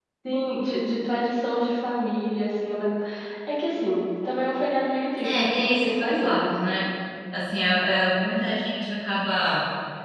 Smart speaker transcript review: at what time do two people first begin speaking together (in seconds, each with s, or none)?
5.2 s